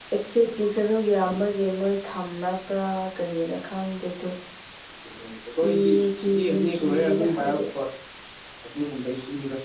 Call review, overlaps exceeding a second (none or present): present